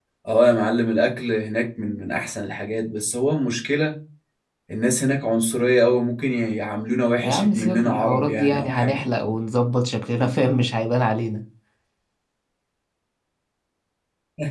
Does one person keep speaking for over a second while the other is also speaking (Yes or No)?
Yes